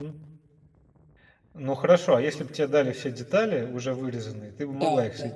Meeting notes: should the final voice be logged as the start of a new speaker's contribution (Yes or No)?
Yes